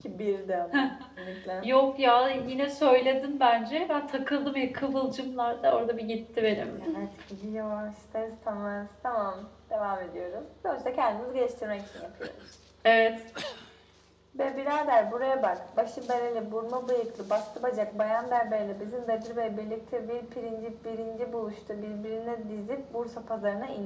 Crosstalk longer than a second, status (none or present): none